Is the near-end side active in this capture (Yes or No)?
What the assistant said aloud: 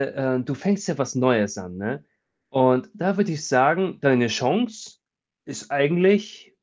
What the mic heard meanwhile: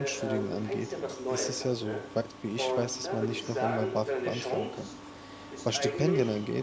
Yes